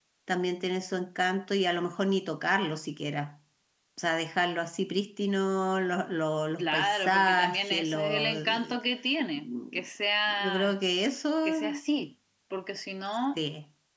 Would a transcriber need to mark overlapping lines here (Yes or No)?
Yes